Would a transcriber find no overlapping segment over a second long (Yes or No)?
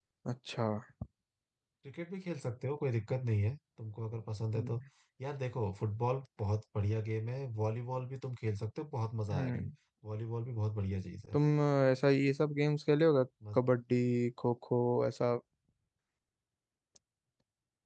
Yes